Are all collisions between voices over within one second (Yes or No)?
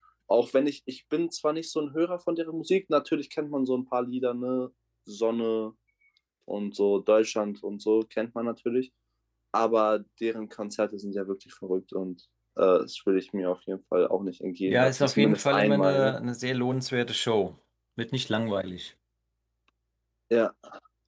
No